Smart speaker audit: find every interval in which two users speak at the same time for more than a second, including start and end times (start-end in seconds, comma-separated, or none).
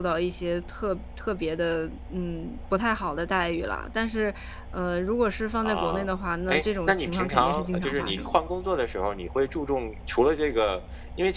6.5-8.4